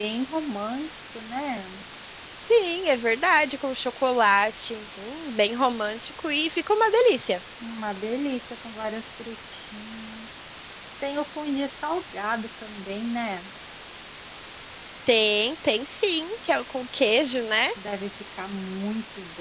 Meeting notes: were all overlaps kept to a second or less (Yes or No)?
Yes